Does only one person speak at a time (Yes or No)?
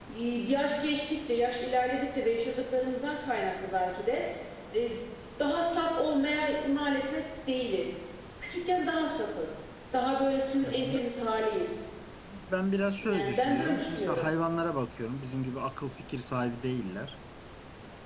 No